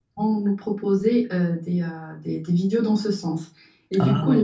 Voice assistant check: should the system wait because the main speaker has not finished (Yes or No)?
Yes